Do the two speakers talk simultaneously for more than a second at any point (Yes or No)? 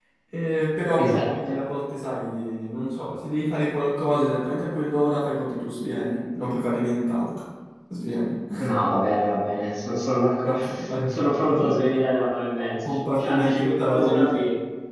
Yes